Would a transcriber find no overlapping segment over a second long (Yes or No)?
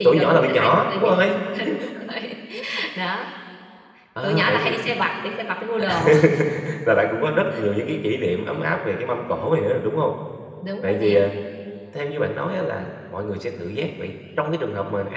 No